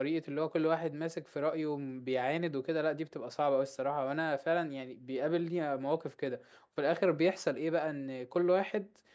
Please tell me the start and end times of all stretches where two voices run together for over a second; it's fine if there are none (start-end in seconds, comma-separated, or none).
none